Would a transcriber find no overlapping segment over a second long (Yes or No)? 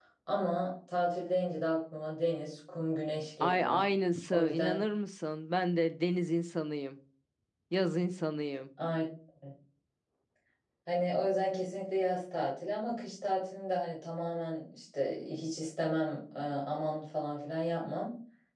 Yes